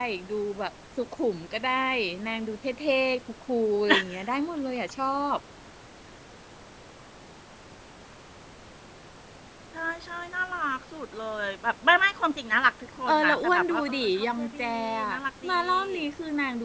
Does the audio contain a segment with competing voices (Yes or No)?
Yes